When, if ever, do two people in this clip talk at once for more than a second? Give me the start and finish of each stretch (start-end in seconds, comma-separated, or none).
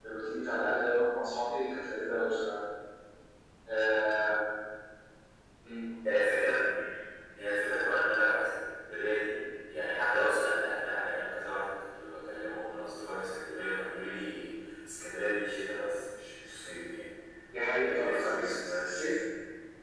17.9-19.1